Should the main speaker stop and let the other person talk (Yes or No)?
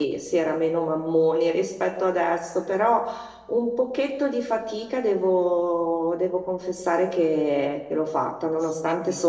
No